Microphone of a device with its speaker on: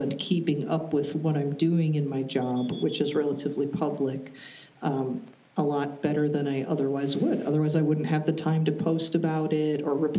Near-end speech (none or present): none